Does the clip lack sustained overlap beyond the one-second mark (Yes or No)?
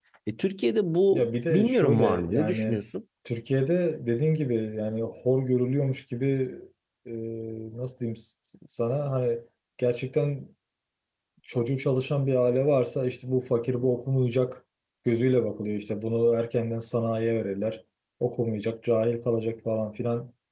No